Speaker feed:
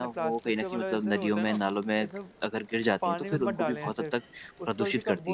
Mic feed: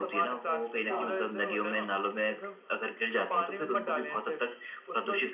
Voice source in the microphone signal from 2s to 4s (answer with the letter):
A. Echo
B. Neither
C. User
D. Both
A